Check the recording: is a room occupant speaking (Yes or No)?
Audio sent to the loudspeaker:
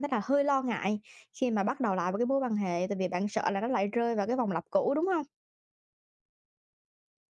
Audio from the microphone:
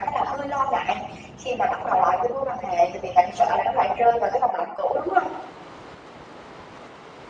No